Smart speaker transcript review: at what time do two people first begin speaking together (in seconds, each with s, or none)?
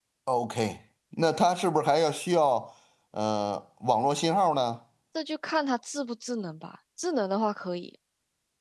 none